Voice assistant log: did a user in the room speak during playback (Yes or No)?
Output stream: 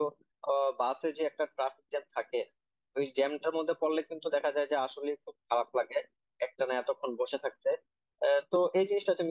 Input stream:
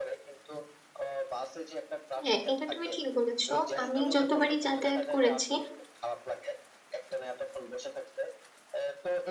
Yes